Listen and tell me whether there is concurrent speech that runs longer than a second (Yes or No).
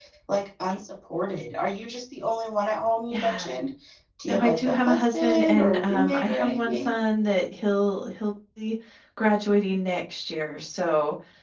Yes